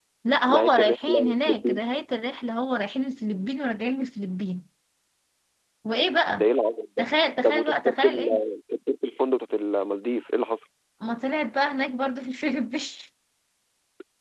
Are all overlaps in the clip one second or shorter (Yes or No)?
No